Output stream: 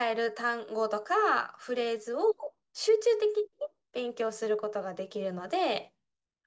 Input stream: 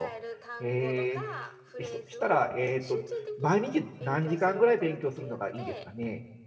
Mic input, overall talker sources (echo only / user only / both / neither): both